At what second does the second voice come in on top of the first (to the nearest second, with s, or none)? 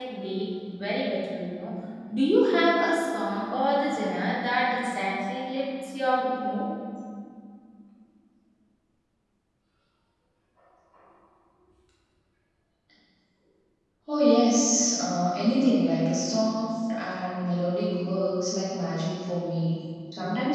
none